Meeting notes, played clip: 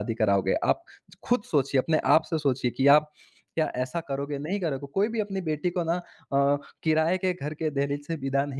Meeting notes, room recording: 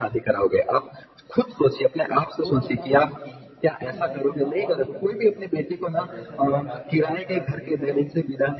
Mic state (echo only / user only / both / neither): both